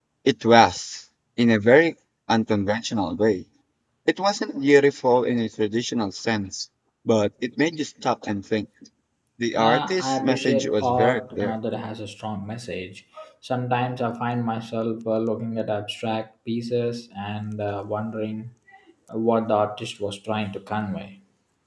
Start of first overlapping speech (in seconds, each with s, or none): 9.6 s